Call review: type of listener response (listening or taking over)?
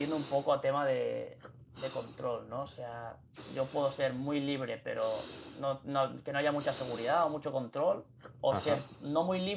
listening